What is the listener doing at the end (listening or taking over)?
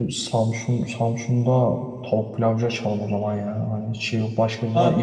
taking over